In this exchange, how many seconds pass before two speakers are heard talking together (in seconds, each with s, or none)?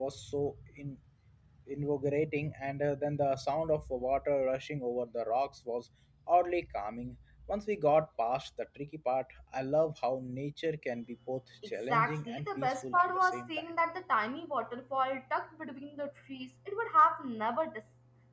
11.9 s